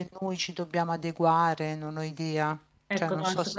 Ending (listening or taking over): taking over